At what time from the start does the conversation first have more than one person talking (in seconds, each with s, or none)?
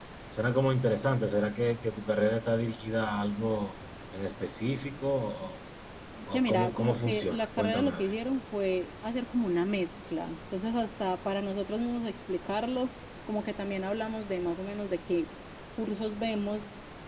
6.3 s